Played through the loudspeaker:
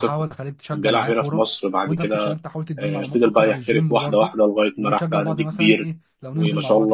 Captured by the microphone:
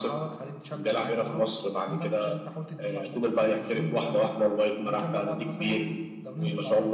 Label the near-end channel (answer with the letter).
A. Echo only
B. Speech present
A